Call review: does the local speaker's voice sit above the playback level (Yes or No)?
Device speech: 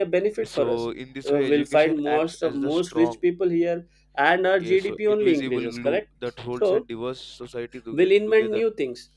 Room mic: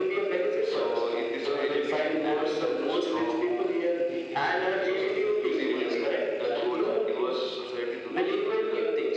No